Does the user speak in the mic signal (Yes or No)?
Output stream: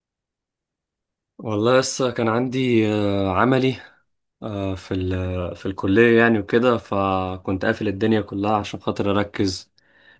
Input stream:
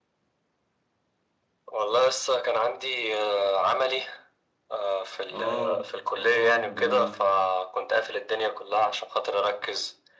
Yes